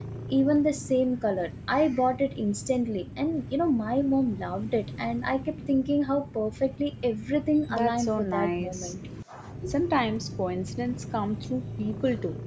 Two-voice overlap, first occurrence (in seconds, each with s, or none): 7.7 s